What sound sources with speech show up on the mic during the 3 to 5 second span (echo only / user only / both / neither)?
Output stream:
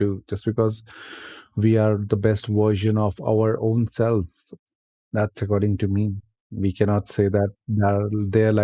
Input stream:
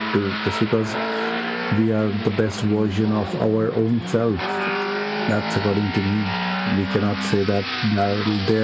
echo only